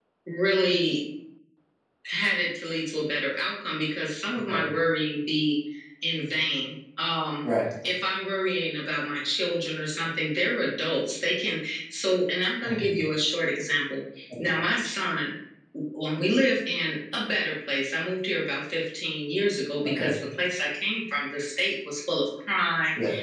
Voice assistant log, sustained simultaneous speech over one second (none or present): none